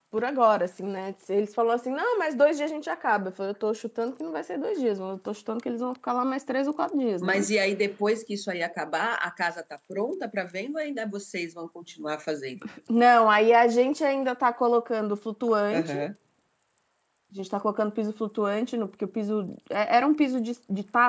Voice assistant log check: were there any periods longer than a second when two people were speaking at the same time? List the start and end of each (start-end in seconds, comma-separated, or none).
none